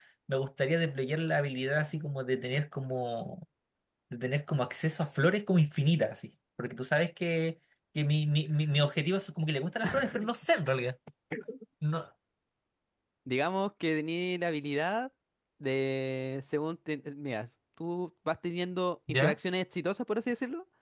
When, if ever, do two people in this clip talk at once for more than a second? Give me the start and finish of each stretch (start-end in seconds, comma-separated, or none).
none